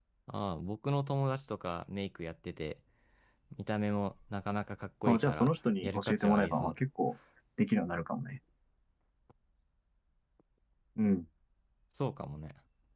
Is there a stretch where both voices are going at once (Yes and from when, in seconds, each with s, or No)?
Yes, from 5.1 s